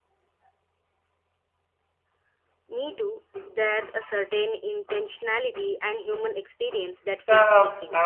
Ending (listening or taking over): taking over